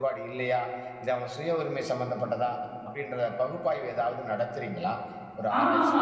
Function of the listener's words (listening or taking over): taking over